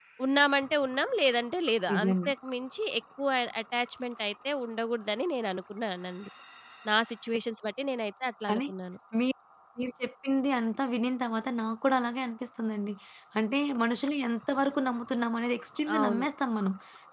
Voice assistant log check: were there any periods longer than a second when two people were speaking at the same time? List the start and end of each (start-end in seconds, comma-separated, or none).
none